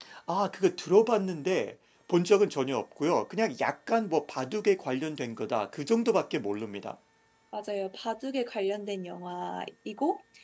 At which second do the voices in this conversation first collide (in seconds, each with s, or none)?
none